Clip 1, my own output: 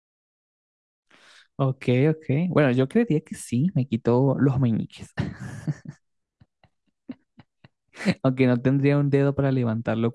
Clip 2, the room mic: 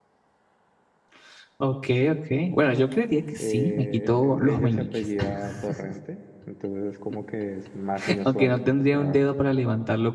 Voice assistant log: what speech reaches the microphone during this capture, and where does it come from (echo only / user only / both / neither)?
both